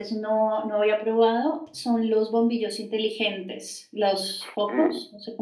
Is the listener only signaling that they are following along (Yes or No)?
No